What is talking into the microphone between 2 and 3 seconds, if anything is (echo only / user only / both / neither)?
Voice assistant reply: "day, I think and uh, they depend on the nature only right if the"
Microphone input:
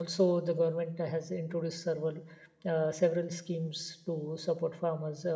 user only